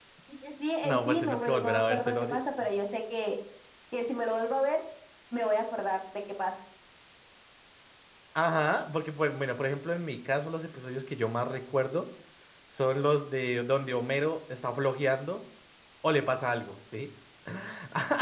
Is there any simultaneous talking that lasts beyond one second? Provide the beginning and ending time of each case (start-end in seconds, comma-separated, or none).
0.8-2.4